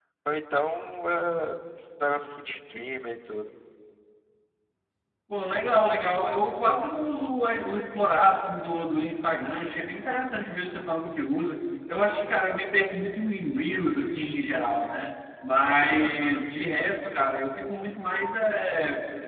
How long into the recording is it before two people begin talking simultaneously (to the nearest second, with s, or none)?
none